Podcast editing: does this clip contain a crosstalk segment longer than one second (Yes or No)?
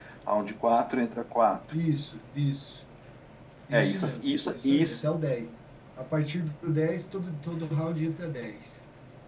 Yes